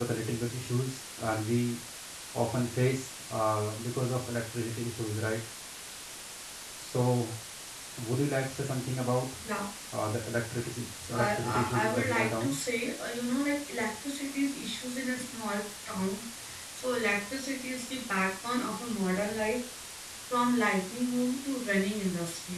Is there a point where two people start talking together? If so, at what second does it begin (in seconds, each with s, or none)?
11.0 s